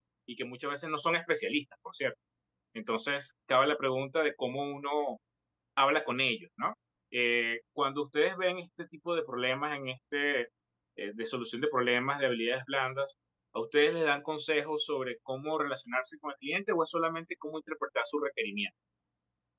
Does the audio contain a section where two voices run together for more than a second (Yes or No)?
No